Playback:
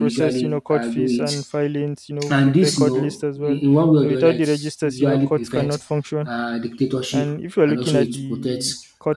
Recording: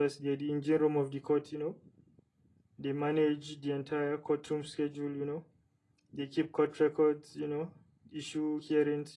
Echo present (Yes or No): No